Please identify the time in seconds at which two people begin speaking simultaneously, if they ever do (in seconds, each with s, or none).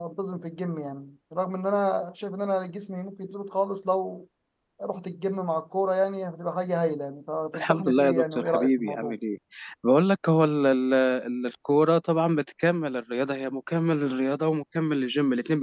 7.5 s